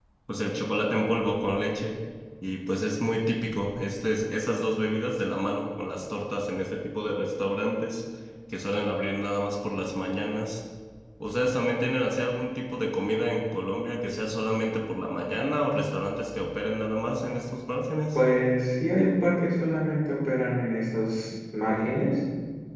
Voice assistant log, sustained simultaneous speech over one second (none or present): none